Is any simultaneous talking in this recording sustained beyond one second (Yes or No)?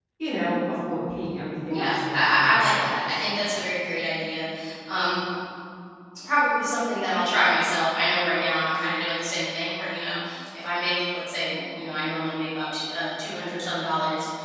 Yes